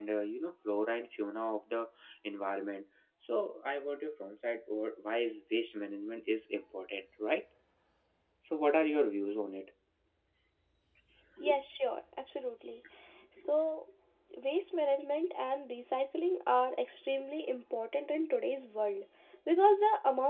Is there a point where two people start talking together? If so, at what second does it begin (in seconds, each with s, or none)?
none